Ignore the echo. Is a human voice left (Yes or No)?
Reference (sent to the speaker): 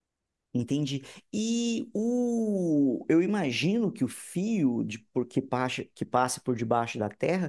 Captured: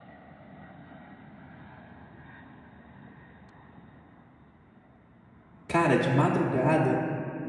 Yes